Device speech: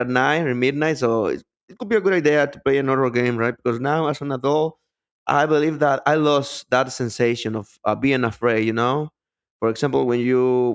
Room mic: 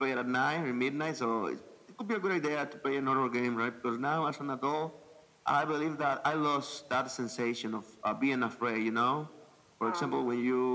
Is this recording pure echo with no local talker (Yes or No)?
No